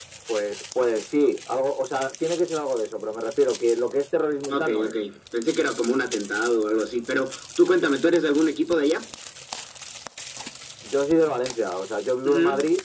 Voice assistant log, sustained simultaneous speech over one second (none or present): none